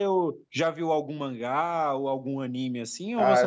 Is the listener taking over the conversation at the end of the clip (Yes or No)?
Yes